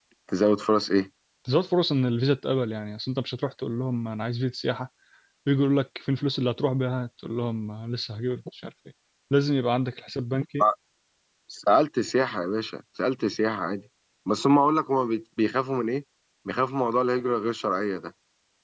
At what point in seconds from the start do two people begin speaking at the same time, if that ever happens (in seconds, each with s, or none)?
none